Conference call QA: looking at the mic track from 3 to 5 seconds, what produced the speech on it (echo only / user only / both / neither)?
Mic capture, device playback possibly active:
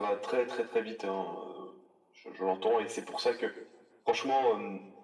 echo only